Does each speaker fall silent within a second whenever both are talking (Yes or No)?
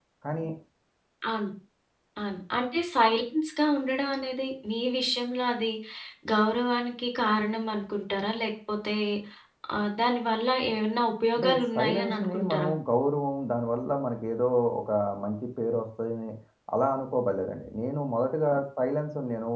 No